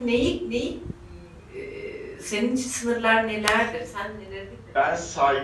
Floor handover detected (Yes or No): Yes